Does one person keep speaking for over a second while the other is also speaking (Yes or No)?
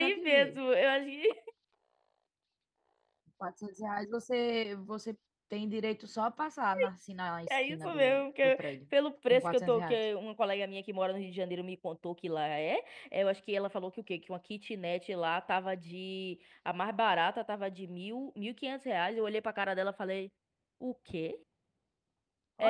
Yes